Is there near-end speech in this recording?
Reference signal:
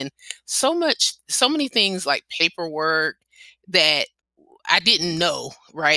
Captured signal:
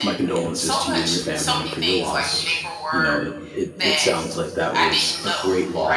Yes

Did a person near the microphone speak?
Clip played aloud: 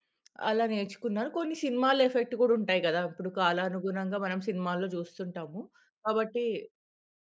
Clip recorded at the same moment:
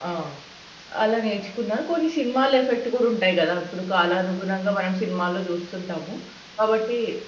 No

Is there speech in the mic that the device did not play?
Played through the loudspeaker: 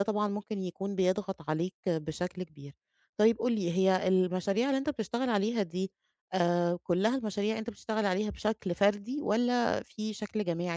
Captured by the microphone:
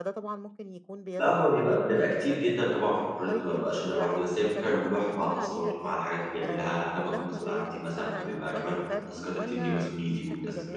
Yes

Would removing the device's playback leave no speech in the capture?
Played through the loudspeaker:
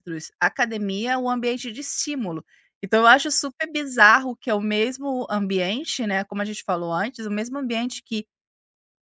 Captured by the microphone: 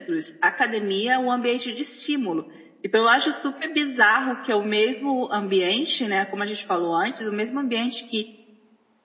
Yes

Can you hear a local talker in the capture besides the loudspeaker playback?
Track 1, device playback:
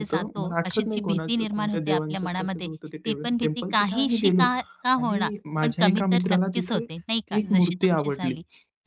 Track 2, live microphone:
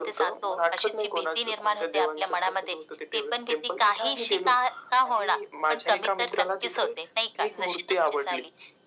No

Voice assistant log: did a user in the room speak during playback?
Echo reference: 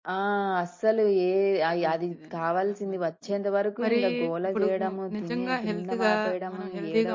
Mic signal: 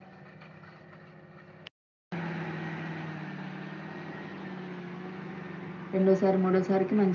Yes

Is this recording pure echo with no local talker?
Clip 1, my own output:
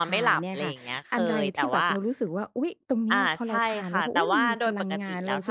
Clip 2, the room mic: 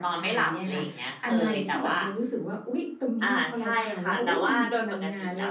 Yes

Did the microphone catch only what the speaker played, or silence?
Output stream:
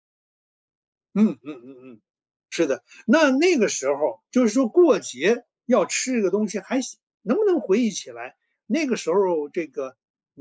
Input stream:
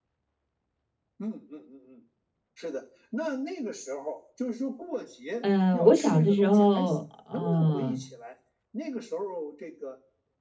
No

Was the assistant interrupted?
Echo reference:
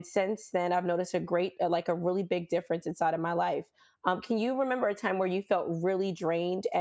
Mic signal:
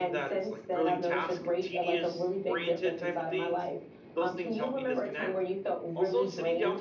Yes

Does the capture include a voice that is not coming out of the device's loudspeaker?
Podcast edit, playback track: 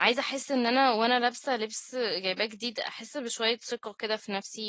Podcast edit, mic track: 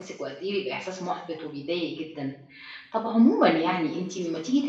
Yes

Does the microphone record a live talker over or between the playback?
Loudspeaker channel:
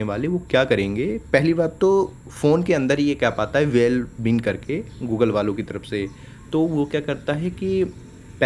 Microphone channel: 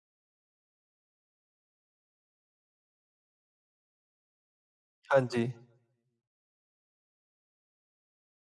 Yes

